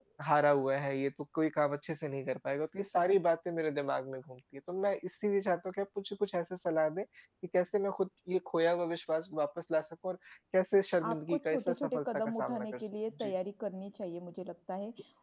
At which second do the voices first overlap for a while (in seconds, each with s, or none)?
11.0 s